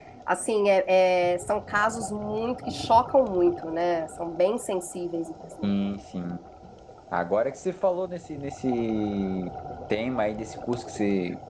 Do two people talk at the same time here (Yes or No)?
No